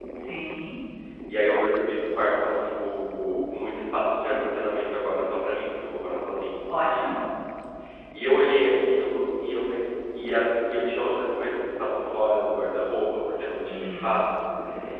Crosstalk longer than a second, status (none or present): none